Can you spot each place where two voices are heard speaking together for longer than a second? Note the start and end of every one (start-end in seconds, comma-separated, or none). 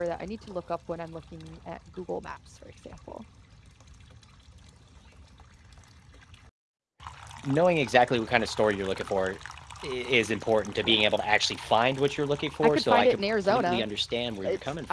12.6-13.9